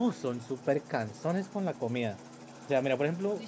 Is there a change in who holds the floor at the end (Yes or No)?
No